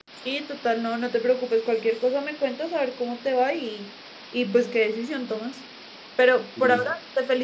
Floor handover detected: No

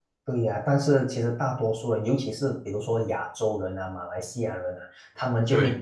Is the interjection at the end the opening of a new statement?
No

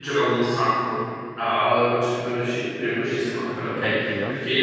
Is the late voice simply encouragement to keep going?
Yes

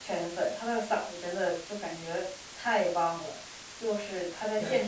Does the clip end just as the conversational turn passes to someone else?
No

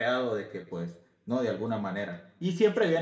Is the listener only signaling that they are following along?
Yes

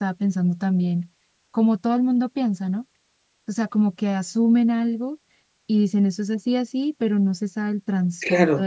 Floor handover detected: Yes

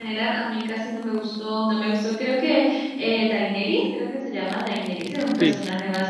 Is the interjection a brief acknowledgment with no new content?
Yes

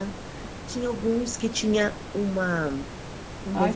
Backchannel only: No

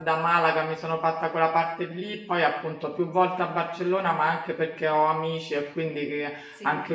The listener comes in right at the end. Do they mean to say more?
No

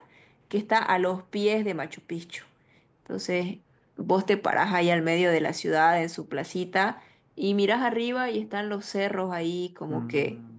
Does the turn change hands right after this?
No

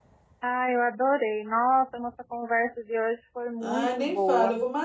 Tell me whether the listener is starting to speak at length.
Yes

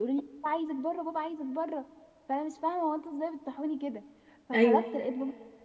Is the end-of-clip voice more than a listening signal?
No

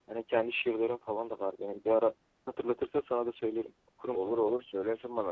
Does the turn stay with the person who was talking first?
No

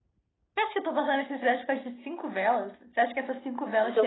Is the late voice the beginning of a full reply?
Yes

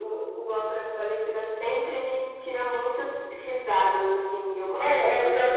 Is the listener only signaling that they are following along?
No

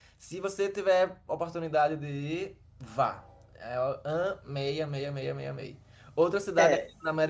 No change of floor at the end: Yes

